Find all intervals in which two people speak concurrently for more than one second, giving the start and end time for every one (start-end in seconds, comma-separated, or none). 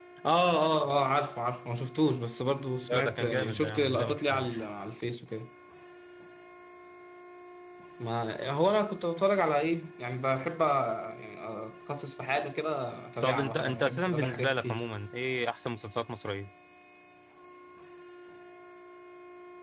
2.8-4.7, 13.2-14.8